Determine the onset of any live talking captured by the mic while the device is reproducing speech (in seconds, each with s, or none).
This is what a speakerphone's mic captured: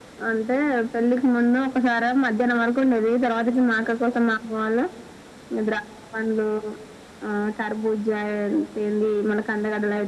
none